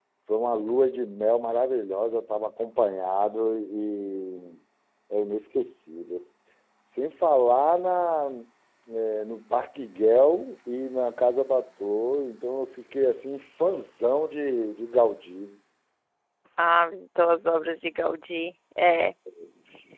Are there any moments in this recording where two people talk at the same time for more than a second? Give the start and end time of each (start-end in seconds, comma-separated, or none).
none